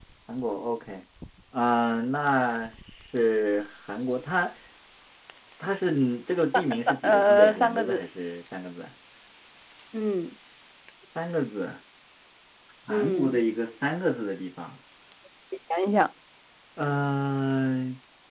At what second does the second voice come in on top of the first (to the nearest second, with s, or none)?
7 s